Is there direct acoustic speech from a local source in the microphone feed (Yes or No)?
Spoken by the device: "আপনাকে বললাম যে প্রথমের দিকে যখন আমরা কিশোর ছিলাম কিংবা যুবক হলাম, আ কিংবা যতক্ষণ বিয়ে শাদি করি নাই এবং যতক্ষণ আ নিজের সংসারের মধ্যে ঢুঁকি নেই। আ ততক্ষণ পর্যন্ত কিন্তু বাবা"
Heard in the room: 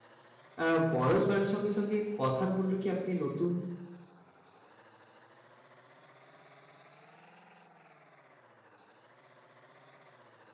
Yes